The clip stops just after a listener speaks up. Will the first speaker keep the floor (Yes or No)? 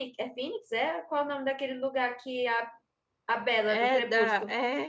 No